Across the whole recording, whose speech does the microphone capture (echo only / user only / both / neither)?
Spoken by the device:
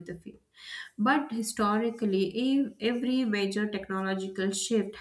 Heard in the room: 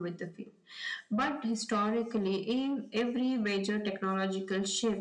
echo only